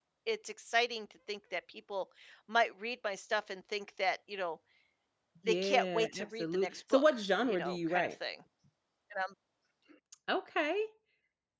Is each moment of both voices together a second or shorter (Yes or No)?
No